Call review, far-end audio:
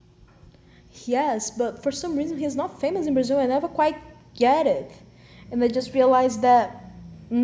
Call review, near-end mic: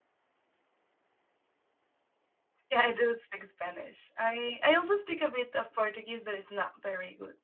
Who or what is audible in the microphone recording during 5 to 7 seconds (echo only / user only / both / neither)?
user only